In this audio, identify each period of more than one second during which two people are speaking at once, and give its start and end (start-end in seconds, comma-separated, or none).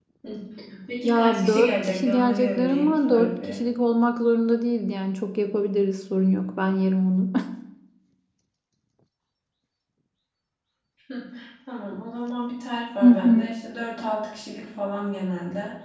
1.0-3.6